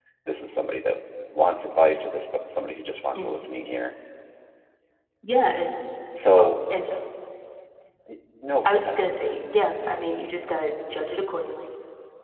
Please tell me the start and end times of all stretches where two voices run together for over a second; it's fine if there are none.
none

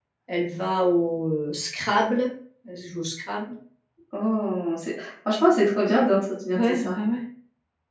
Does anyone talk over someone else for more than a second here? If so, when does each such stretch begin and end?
none

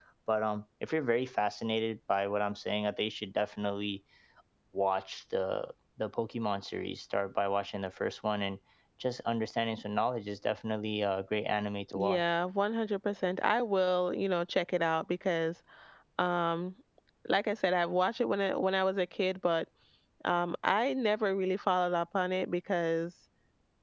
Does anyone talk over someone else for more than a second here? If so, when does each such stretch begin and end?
none

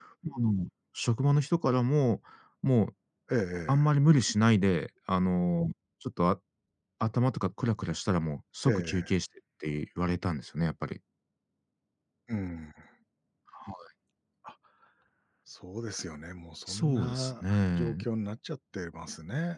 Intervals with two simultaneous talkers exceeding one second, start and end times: 16.7-18.0

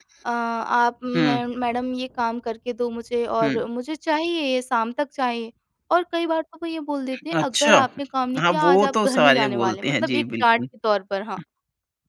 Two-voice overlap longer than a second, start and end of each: 8.4-10.6

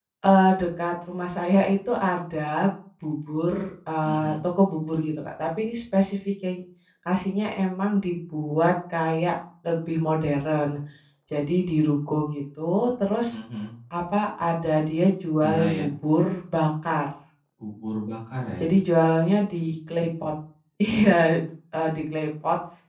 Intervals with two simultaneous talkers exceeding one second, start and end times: none

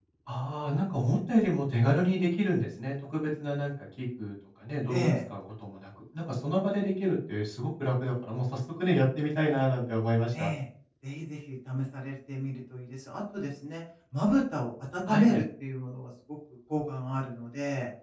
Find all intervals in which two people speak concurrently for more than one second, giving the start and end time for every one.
none

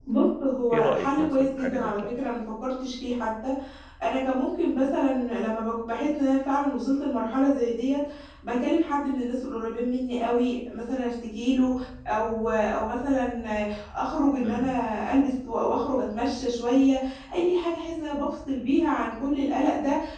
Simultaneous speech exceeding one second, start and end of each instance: 0.7-2.2

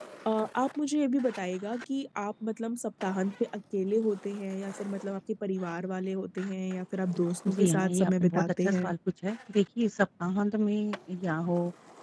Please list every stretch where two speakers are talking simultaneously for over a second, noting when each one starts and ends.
7.5-8.9

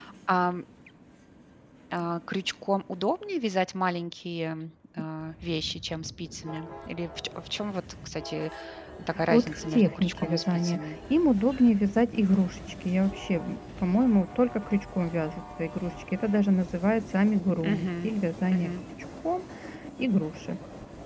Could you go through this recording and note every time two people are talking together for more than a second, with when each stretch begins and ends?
9.3-10.8

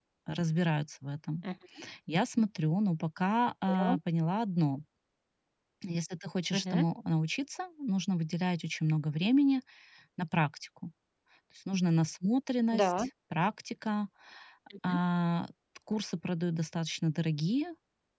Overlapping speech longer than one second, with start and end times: none

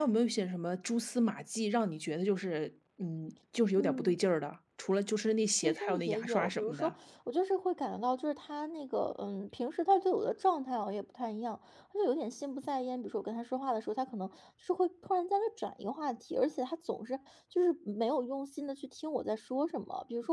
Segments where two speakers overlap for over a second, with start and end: 5.6-6.9

